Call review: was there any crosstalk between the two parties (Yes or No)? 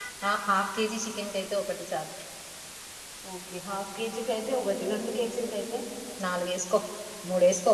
No